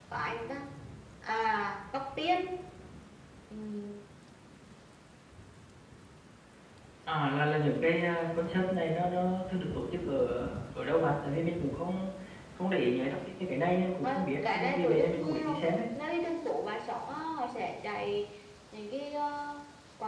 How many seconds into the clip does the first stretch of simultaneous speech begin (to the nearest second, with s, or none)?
14 s